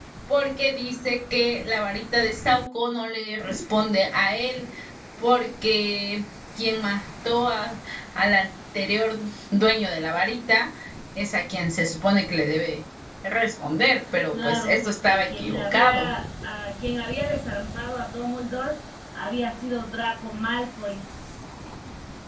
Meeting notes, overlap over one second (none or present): present